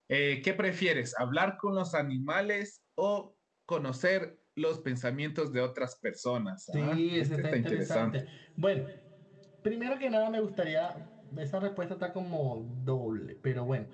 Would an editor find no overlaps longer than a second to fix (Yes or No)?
No